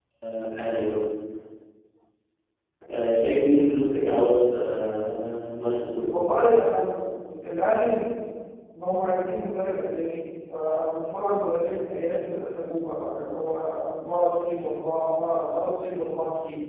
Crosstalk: none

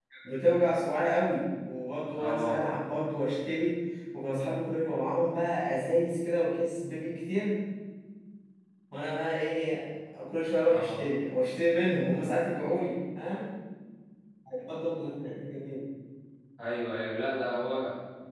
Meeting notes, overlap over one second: none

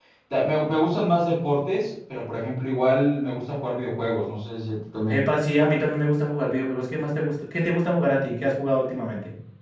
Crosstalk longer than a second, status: none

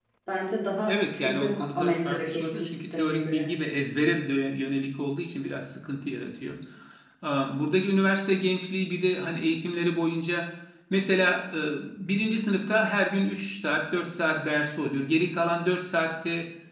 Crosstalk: present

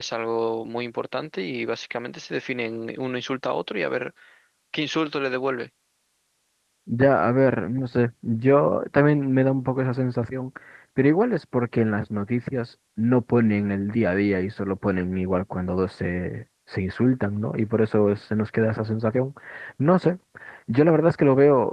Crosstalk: none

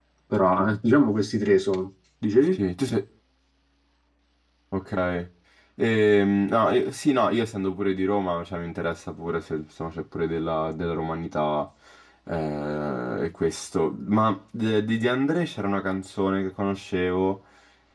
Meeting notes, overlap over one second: none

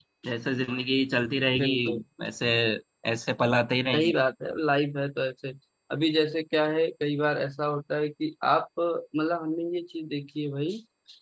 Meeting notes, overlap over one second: none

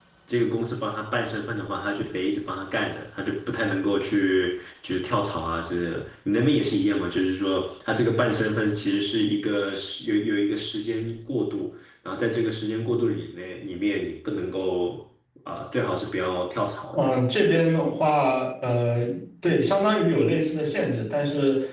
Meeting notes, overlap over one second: none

